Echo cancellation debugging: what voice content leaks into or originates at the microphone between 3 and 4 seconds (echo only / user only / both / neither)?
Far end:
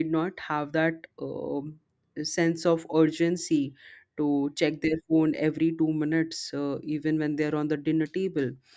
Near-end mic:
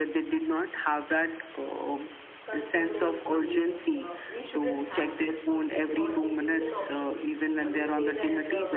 both